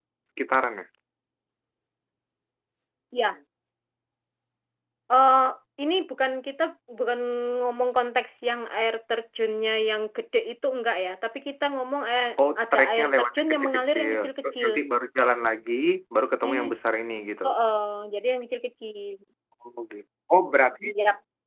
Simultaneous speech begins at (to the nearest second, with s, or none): 13 s